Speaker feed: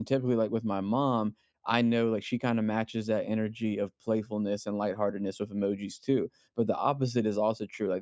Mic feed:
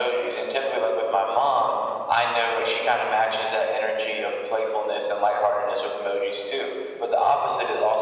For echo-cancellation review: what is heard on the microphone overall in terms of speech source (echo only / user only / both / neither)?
echo only